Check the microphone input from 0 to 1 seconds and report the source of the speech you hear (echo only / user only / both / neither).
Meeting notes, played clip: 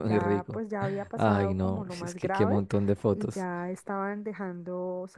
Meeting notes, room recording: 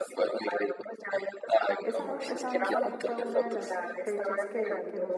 echo only